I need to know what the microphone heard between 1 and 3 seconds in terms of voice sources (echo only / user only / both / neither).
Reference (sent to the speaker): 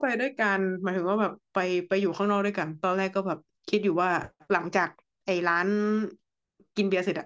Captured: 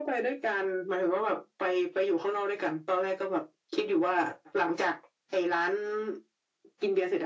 echo only